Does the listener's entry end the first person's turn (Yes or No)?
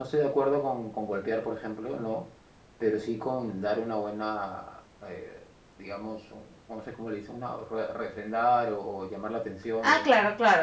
Yes